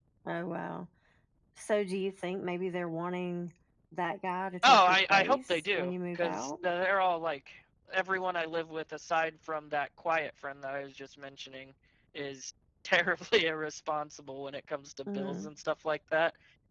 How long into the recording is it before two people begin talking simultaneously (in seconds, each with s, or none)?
4.6 s